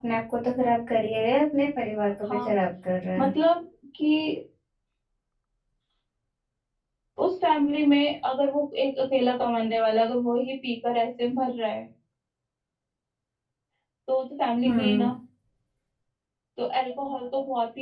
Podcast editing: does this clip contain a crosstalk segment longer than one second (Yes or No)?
No